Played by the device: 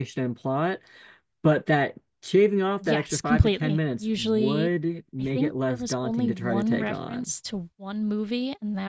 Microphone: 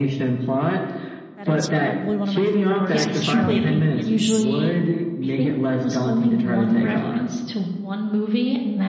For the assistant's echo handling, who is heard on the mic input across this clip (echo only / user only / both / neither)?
both